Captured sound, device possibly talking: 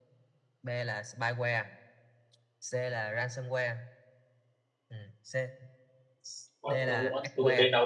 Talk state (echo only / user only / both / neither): both